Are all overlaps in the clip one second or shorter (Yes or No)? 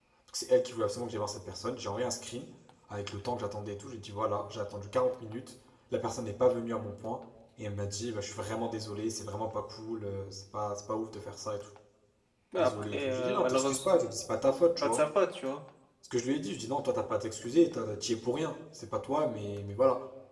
No